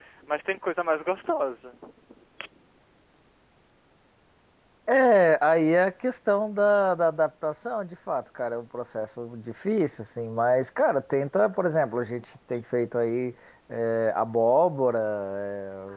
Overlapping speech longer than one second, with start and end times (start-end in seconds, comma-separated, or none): none